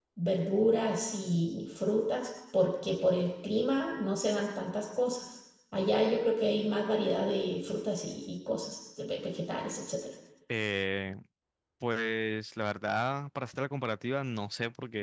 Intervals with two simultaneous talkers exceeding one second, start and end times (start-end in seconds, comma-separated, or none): none